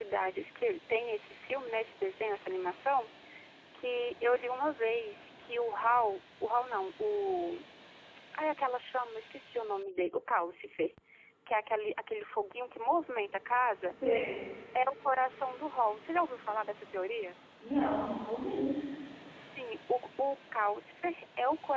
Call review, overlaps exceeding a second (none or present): none